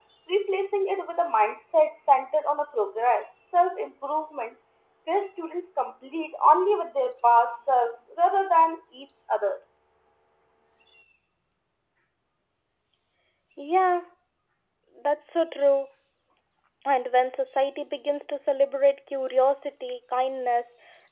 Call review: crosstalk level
none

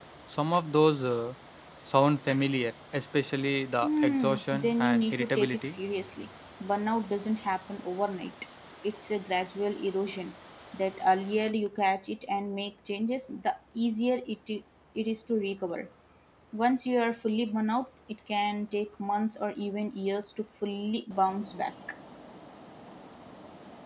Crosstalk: present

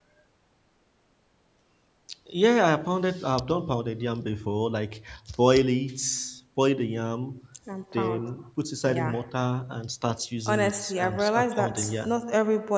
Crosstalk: present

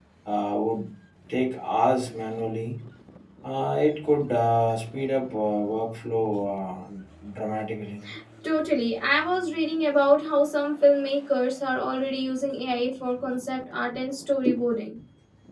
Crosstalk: none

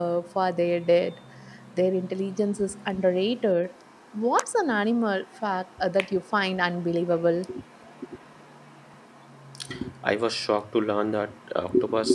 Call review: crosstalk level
none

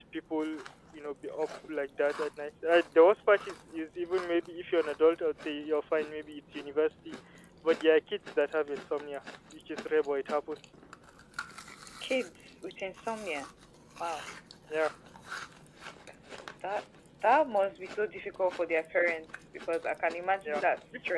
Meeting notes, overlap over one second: none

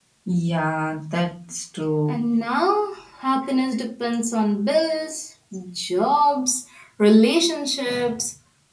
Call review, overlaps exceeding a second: none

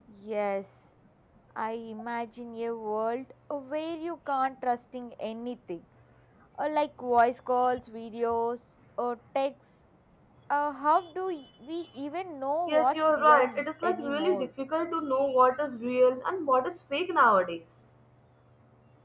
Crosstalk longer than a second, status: present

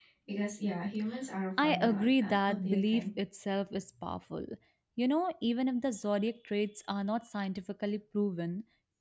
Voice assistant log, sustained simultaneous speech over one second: present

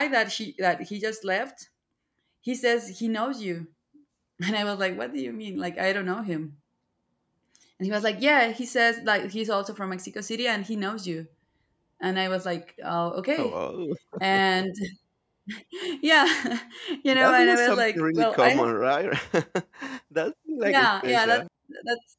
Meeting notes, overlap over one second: present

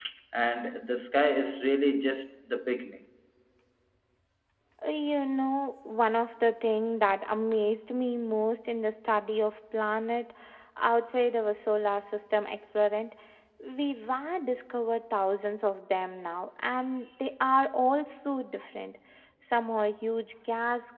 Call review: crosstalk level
none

